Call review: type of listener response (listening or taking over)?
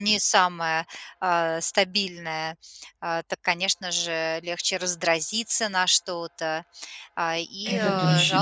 listening